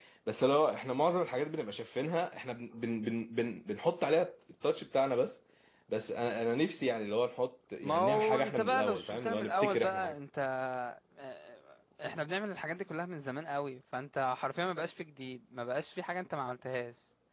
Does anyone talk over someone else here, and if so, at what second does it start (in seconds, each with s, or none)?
7.8 s